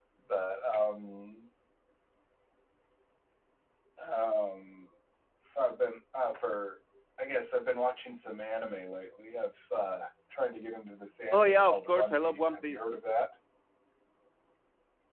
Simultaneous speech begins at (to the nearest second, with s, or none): 11 s